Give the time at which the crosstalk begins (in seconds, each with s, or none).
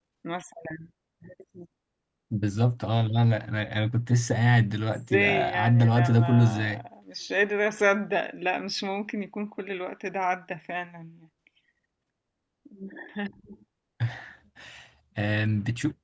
5.1 s